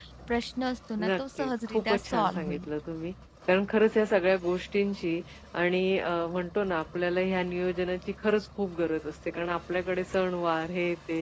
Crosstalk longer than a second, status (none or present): present